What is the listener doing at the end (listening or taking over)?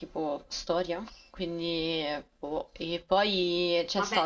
taking over